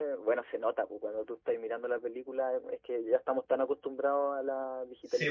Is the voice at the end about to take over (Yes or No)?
No